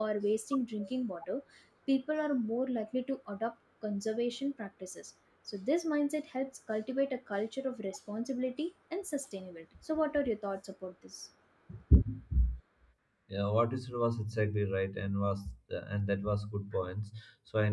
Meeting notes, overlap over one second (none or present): none